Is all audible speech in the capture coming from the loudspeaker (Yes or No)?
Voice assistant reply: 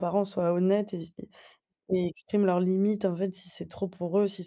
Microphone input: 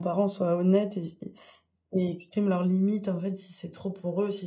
Yes